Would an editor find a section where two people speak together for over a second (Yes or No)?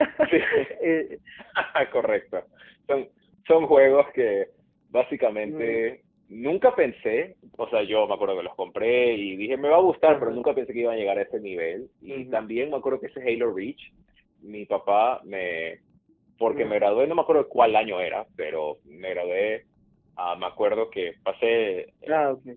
No